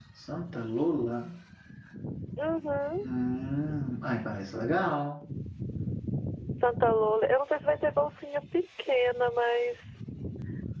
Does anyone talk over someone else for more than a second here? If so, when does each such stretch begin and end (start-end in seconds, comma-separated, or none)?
none